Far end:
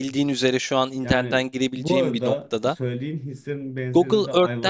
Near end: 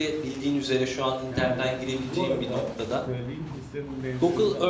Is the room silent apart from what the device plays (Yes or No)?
Yes